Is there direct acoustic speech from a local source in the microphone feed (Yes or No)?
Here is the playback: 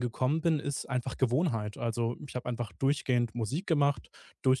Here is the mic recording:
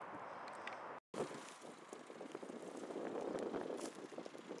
No